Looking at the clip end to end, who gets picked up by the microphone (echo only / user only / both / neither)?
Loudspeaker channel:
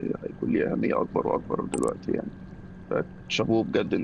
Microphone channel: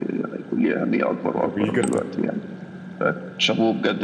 both